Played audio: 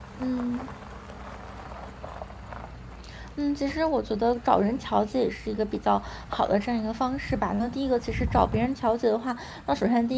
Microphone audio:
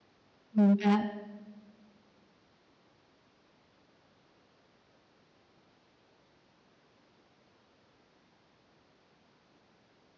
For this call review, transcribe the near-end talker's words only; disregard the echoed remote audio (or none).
明白。